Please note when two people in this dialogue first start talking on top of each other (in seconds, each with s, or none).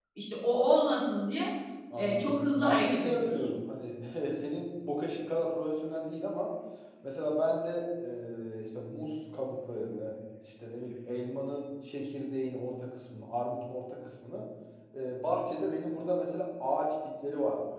2.0 s